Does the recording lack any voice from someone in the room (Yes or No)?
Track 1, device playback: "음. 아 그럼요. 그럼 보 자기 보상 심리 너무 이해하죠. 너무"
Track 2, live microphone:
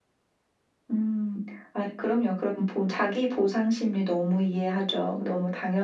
Yes